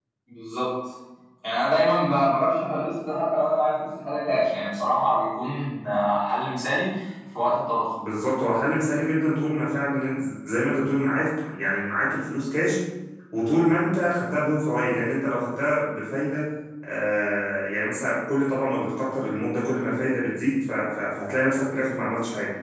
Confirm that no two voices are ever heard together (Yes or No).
Yes